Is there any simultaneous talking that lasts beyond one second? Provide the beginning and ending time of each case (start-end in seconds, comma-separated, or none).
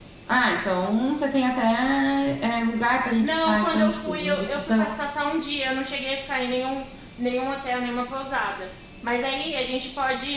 3.2-4.9